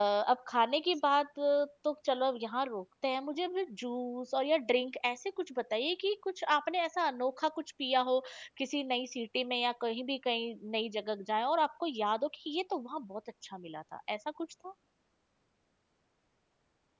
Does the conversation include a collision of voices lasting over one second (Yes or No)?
No